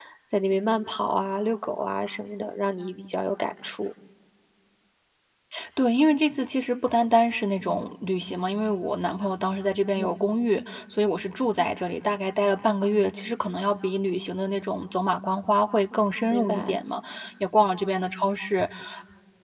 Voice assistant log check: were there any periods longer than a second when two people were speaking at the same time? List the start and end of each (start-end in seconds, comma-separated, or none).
none